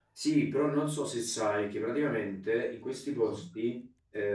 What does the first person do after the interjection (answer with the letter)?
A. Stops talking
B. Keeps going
B